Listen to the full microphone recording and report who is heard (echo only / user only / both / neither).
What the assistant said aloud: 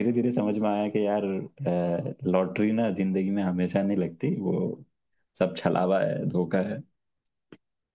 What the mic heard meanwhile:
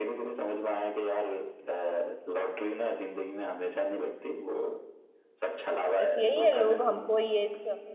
both